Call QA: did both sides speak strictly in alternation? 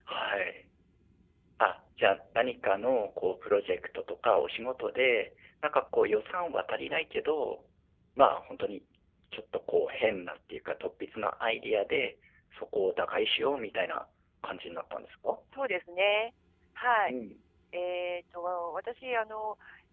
Yes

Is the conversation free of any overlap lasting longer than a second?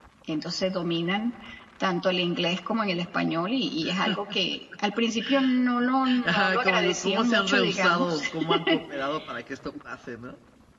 No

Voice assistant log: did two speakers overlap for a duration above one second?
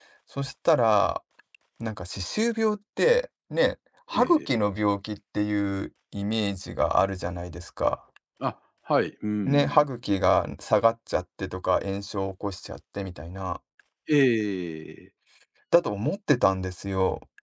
No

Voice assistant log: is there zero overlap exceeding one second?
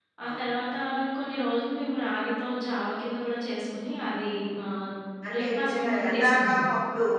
No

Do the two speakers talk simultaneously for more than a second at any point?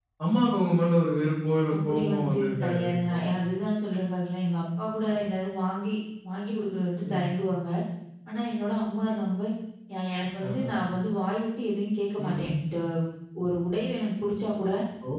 Yes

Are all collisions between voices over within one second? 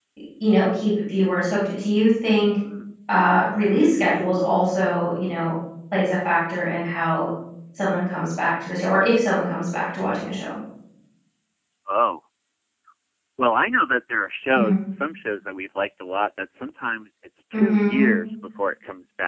Yes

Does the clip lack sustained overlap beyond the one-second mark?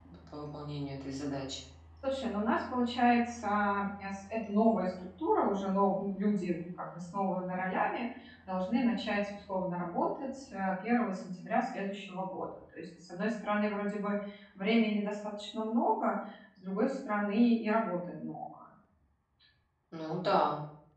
Yes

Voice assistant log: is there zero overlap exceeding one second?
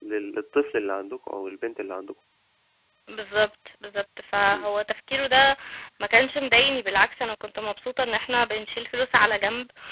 Yes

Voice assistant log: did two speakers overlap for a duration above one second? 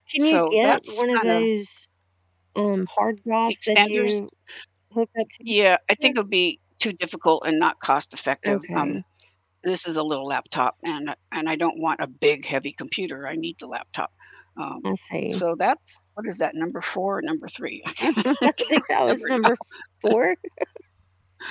Yes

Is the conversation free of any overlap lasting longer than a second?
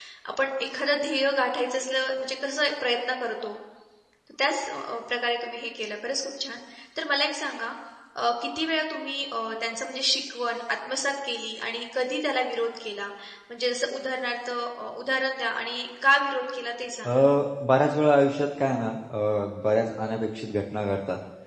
Yes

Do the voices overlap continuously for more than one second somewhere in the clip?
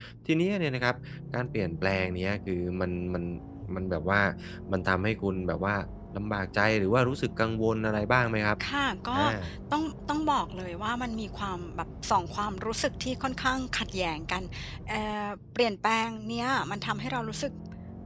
No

